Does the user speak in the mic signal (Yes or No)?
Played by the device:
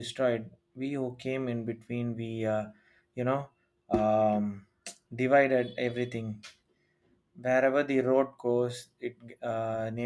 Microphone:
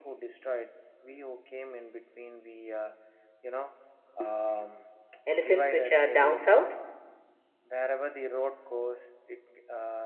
Yes